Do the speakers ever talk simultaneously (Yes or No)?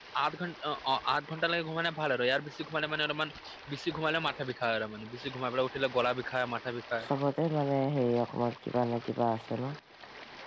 No